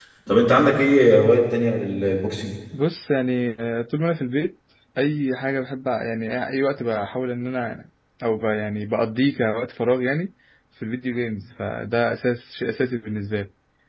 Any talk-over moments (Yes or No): No